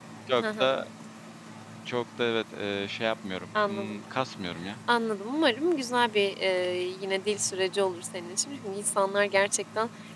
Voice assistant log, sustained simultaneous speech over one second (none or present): none